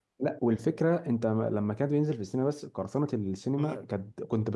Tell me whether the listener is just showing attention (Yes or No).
Yes